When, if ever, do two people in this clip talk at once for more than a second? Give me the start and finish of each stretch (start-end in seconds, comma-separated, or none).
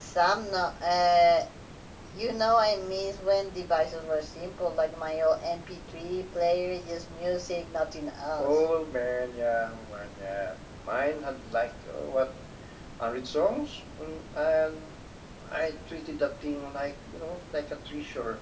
none